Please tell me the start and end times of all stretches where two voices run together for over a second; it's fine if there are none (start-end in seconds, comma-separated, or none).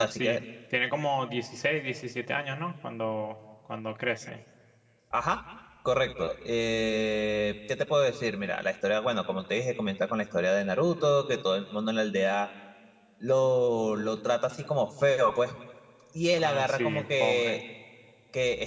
16.3-17.6